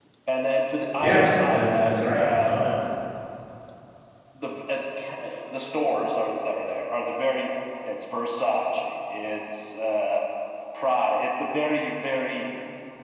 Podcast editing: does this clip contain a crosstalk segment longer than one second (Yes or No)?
Yes